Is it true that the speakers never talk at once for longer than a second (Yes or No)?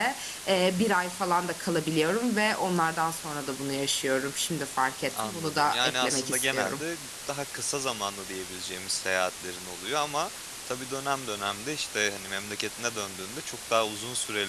No